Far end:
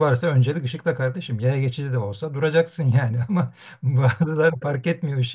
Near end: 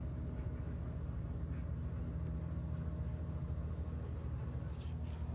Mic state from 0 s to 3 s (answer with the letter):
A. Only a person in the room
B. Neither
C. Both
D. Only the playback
B